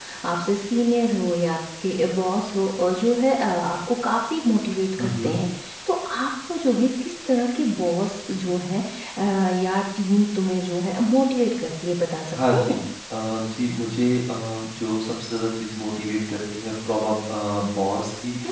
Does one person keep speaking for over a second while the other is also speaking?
No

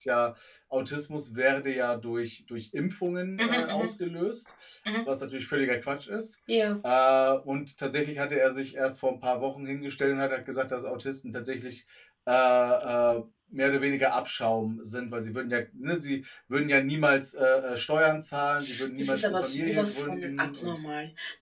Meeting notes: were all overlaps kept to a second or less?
No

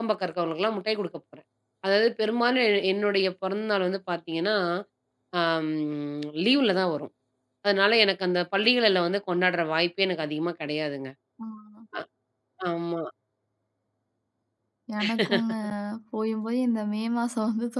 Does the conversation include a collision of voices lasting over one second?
No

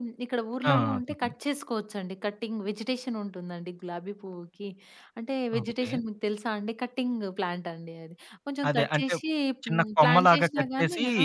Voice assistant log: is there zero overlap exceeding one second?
No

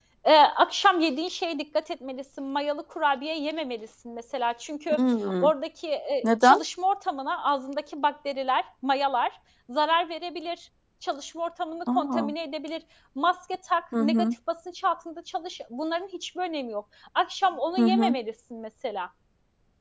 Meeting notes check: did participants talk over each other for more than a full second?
No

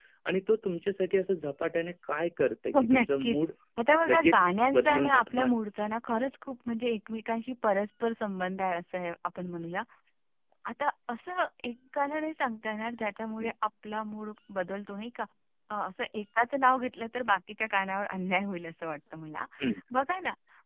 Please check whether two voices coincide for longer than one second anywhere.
Yes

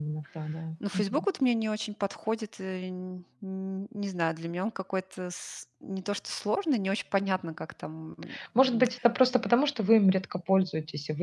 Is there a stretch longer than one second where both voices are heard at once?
No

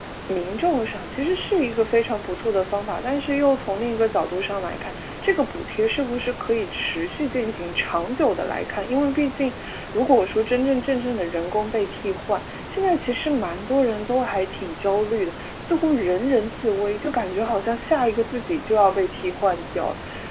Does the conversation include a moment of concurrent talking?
No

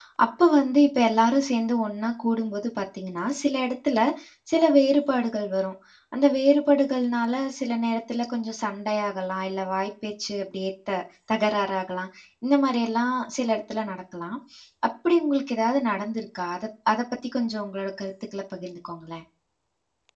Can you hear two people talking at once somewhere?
No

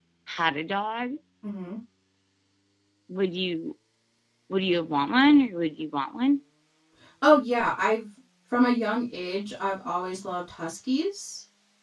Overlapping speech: No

